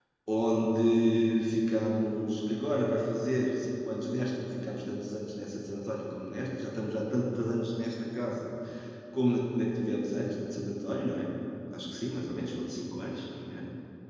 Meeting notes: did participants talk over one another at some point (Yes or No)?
No